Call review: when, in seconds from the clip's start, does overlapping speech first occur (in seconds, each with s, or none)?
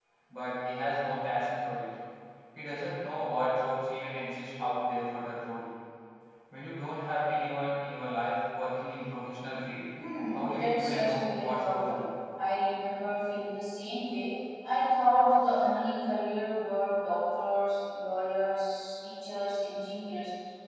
10.3 s